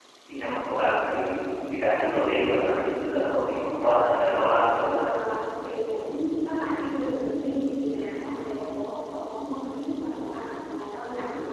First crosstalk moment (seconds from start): none

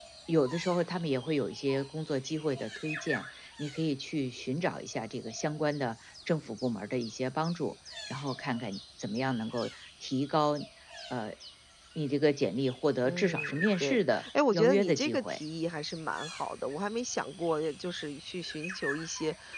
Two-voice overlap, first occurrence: 13 s

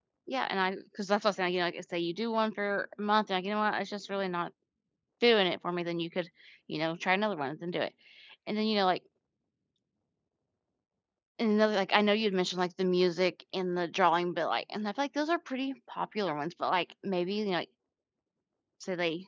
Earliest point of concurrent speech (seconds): none

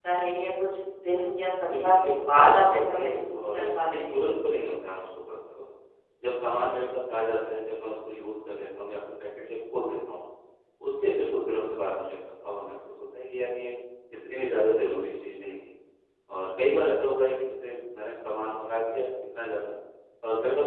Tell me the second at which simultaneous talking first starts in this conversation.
2 s

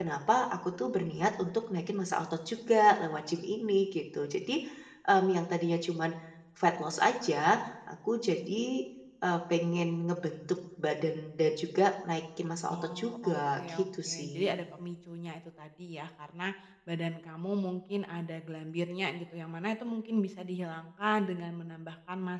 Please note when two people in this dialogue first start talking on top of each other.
13 s

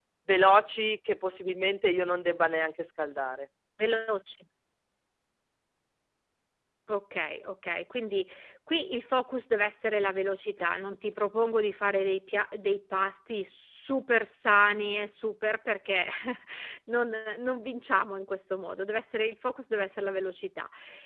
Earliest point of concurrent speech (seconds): none

